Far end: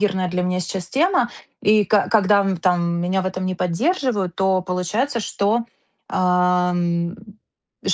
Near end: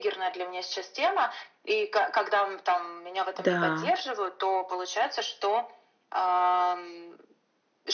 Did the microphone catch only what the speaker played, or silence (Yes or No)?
No